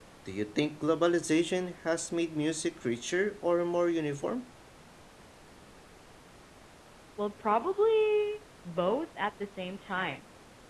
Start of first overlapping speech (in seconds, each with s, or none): none